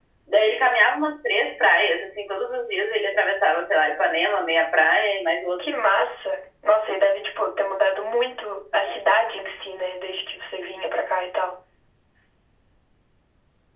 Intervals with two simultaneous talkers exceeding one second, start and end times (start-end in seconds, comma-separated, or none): none